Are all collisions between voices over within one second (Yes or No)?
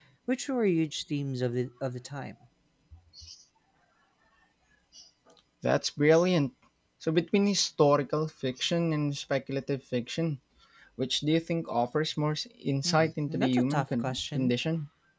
No